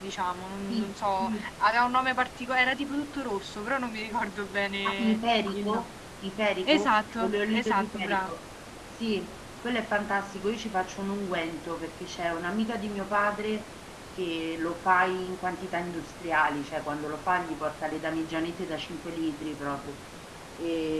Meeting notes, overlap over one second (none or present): present